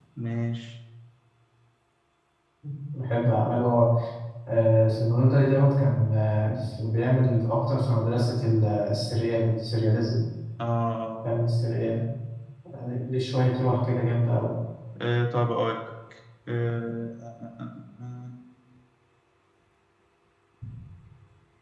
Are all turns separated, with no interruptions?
Yes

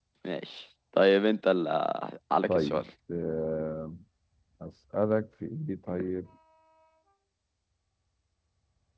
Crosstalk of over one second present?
No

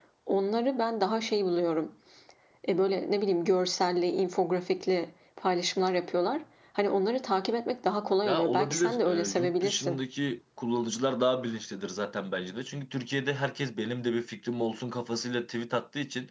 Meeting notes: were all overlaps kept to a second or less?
No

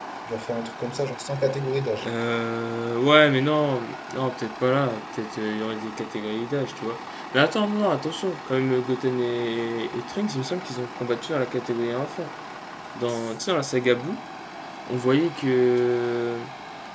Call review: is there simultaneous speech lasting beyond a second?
No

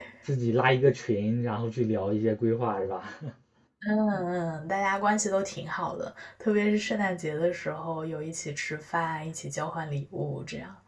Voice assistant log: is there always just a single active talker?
Yes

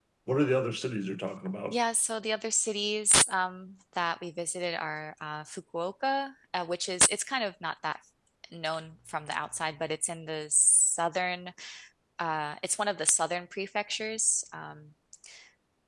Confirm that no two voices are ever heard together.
Yes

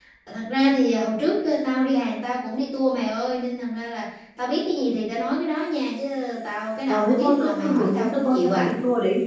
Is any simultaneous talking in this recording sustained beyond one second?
Yes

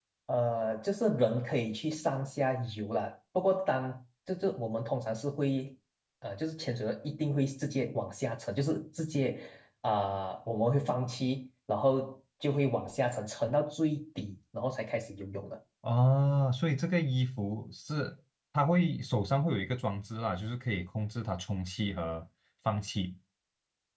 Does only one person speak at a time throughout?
Yes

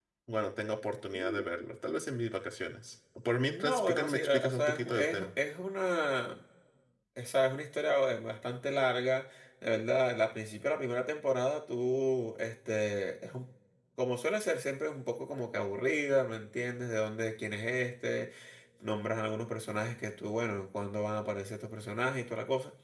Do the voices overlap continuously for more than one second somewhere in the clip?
Yes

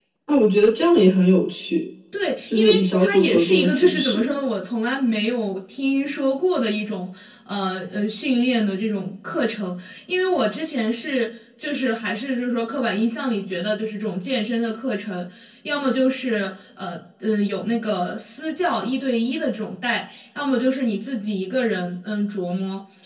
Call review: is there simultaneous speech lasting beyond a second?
Yes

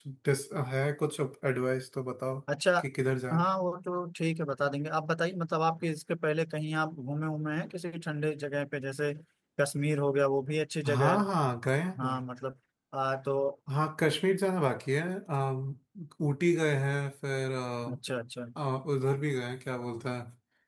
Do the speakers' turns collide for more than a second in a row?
No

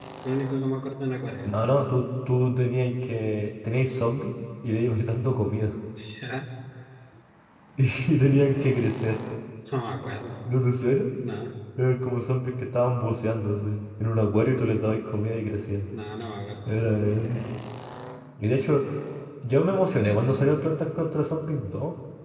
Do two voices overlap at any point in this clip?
No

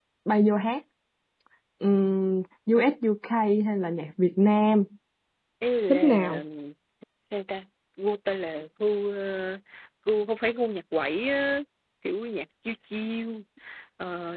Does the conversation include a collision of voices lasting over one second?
No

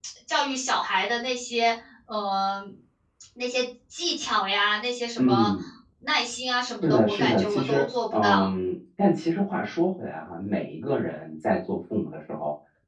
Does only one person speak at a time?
No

